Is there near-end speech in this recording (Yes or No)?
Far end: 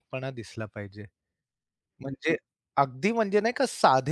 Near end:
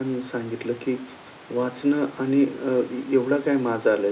Yes